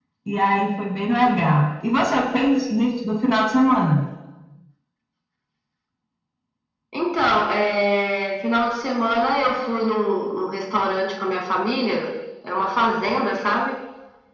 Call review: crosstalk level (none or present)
none